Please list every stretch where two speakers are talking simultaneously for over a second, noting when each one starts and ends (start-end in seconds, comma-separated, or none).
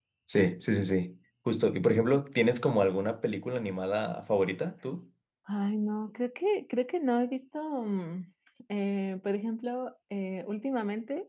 none